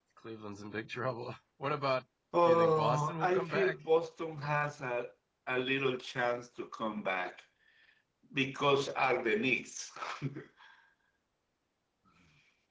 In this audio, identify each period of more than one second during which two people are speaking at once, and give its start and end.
2.5-3.7

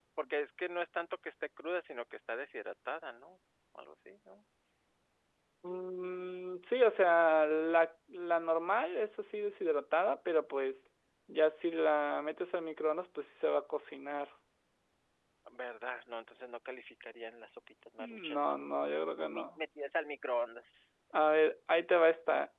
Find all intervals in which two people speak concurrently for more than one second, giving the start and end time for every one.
none

